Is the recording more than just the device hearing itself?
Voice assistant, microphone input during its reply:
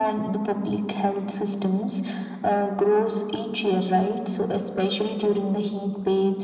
No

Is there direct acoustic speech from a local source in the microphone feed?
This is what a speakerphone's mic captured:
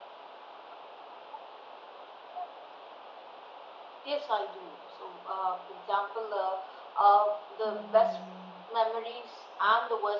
Yes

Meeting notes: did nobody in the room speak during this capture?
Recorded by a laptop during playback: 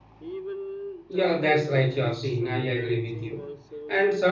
No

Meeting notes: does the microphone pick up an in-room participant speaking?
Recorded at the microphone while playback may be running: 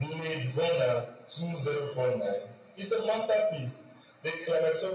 No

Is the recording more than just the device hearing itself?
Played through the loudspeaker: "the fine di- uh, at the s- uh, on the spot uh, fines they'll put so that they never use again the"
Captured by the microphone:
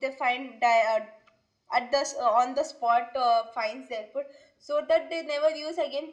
No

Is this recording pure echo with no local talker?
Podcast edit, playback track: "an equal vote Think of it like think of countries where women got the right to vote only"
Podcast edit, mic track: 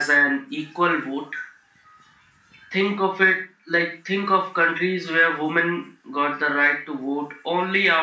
Yes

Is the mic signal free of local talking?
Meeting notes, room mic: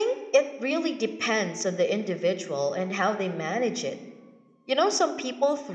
Yes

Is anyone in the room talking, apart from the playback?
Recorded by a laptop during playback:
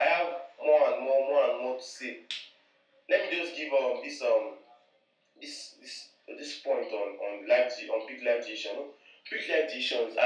No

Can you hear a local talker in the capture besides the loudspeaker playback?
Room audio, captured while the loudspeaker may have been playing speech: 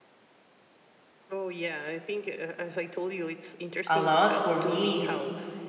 Yes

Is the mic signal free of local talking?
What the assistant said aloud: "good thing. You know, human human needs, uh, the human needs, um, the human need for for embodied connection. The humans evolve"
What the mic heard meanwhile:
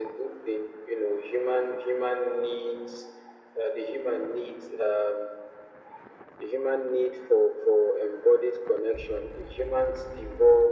Yes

